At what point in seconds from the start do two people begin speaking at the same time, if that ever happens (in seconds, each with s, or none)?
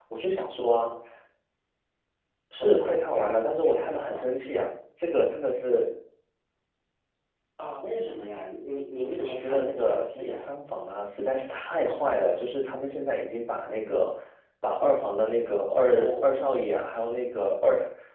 2.6 s